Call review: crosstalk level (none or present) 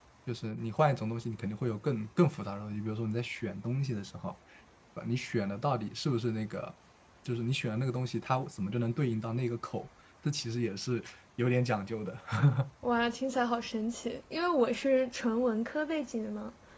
none